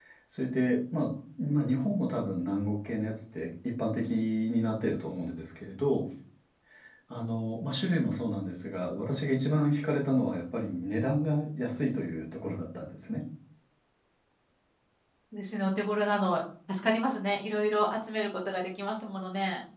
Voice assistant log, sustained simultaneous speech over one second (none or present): none